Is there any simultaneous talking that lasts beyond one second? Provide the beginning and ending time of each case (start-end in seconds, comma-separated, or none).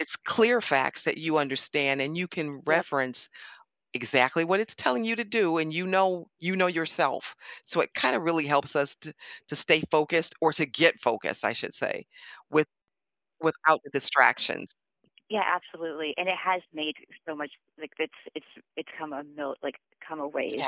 none